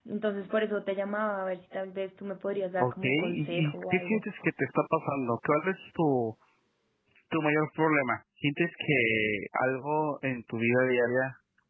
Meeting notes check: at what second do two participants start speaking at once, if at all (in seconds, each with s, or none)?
2.8 s